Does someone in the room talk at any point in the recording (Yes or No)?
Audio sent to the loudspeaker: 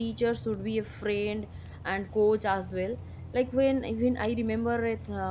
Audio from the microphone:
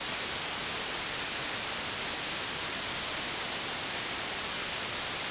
No